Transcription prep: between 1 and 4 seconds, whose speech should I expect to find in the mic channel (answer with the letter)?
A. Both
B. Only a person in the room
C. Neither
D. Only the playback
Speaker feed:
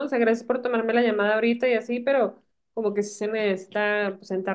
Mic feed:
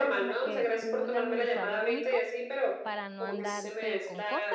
A